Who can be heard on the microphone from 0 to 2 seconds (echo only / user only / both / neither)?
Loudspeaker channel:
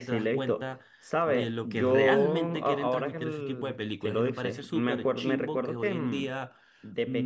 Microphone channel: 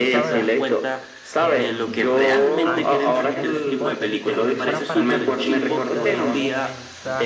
both